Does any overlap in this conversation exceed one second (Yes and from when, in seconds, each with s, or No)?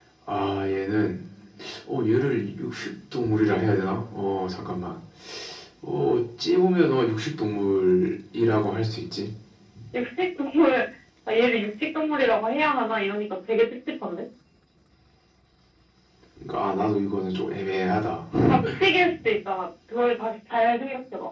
No